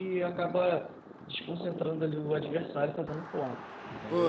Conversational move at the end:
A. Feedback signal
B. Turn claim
B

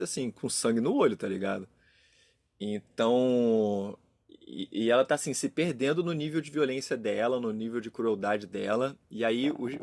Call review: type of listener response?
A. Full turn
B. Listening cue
B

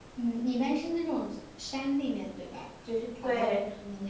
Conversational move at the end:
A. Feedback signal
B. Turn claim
B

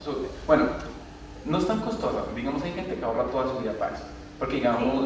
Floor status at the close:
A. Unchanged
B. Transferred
A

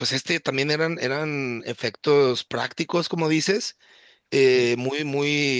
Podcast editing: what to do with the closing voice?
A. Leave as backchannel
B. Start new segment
A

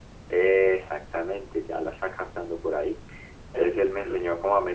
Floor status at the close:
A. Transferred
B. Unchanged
B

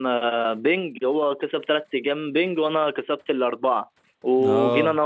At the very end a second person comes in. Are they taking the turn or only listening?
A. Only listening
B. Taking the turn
A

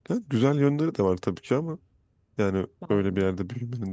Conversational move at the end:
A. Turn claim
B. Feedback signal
B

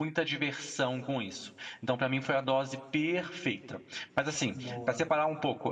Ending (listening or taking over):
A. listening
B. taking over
A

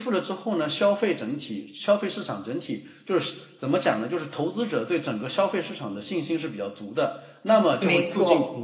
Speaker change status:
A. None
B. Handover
A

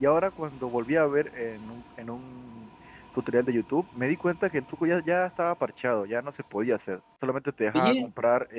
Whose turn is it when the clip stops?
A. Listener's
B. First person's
B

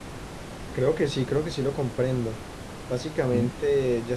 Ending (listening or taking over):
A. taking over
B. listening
B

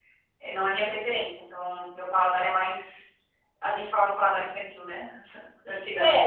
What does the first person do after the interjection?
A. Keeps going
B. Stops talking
B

